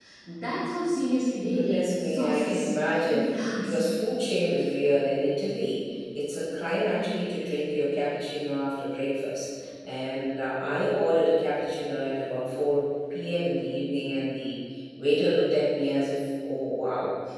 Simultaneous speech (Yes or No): Yes